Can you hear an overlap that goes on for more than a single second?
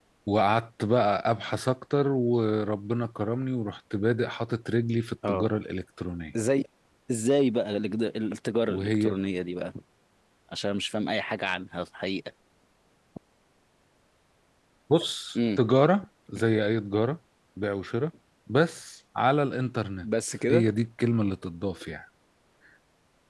No

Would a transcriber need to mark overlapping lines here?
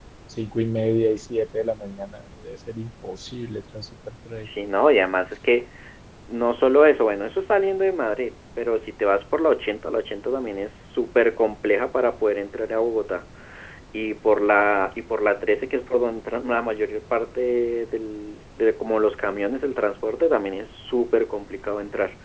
No

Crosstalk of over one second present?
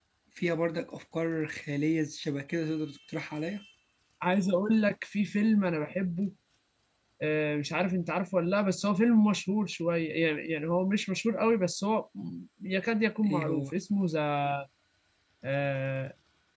No

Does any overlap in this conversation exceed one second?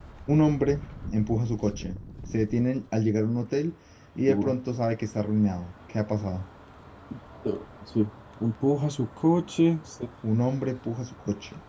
No

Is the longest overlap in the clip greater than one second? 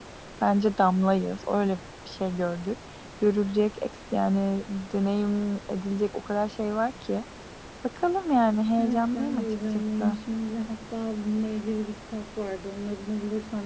Yes, from 8.8 s

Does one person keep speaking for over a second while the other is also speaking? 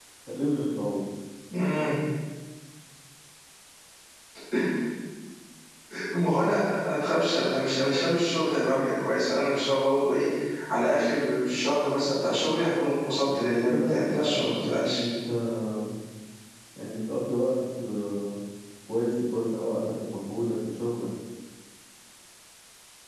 Yes, from 13.2 s

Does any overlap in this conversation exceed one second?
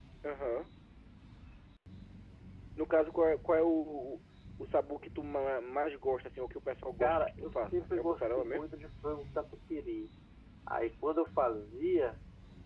Yes, from 7.0 s

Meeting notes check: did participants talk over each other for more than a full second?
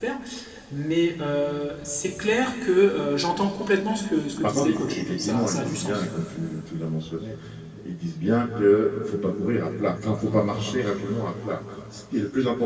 Yes, from 4.4 s

